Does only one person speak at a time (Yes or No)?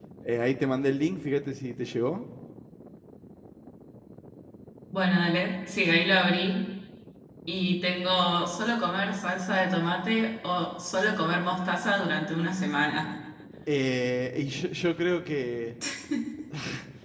Yes